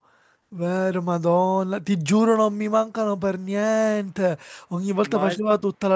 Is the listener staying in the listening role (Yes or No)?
Yes